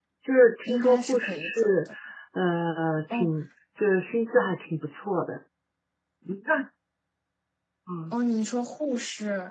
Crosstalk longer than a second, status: present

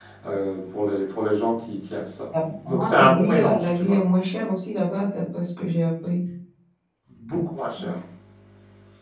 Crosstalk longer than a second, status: present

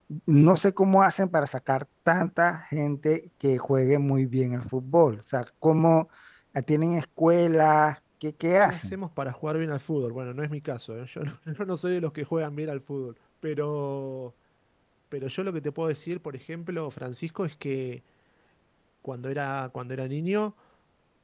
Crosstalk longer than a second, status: none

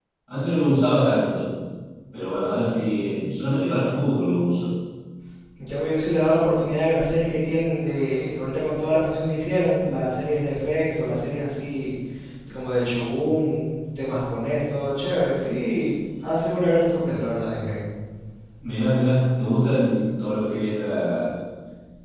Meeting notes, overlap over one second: none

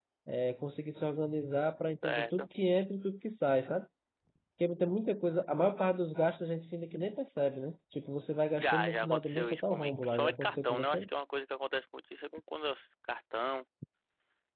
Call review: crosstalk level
present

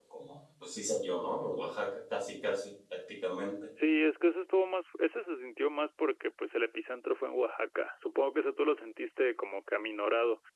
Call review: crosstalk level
none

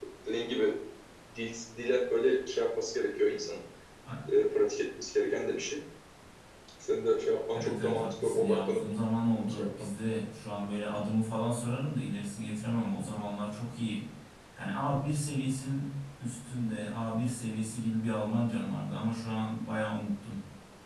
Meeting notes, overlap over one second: present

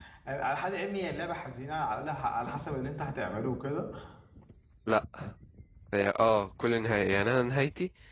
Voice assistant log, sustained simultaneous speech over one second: none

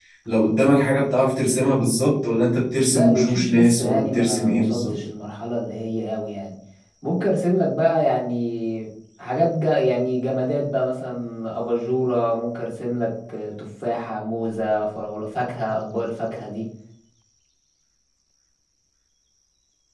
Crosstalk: present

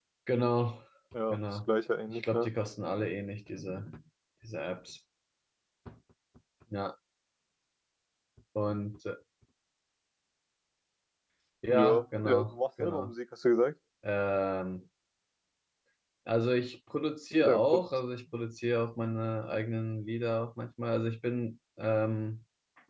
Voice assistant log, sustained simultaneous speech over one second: present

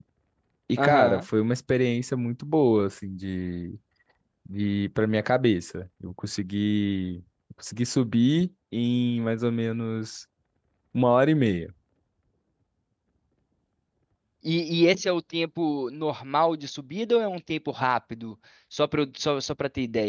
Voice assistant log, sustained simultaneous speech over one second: none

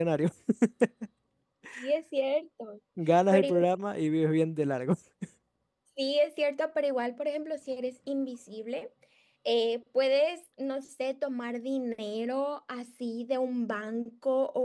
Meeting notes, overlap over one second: none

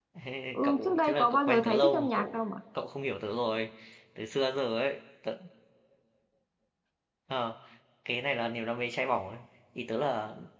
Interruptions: present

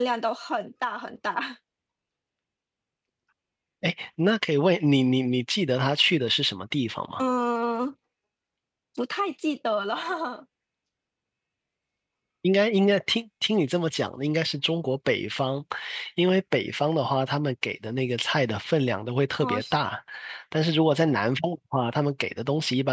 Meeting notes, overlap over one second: none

